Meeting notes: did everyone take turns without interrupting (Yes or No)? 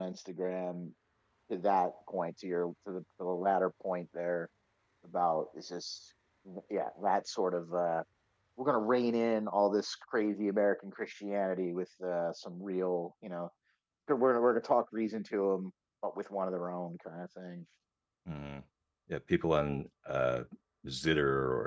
Yes